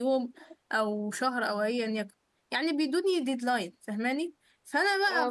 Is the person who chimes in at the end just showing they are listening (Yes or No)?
Yes